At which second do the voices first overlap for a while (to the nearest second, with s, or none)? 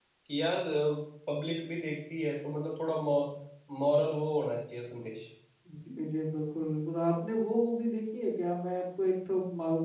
none